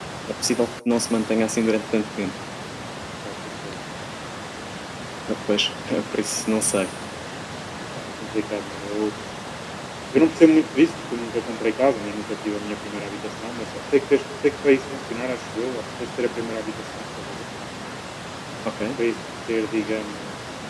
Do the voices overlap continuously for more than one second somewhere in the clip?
No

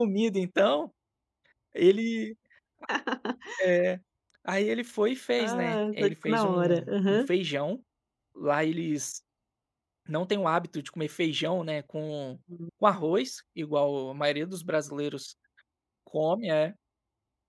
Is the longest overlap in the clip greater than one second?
Yes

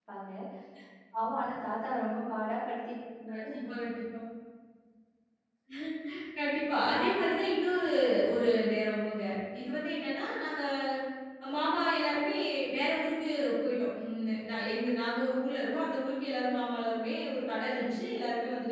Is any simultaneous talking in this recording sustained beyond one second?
No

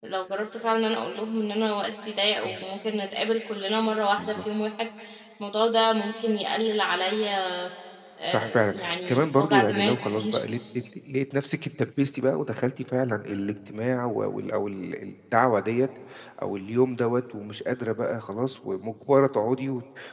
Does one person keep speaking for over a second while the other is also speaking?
Yes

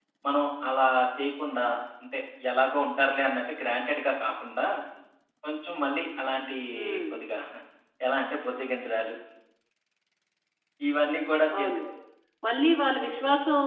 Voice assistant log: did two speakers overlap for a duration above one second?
No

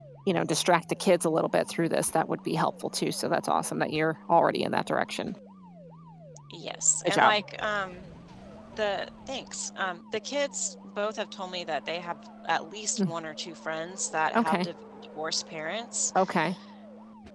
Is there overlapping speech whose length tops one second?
No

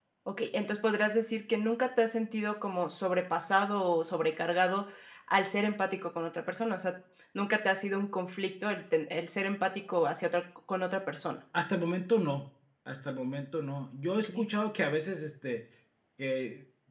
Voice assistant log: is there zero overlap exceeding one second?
Yes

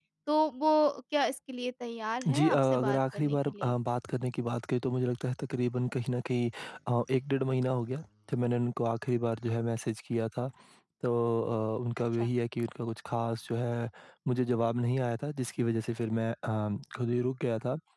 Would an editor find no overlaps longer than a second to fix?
No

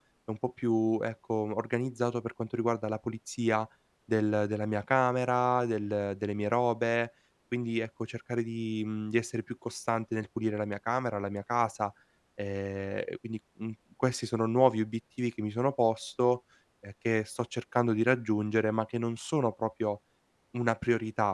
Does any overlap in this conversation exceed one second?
No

